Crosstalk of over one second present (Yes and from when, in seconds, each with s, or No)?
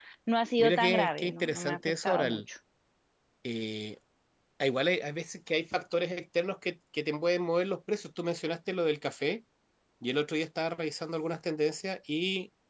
Yes, from 0.6 s